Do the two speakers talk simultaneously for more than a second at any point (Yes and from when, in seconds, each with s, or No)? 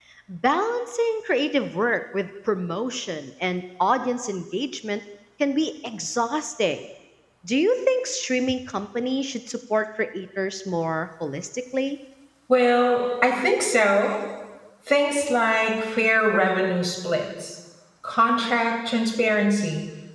No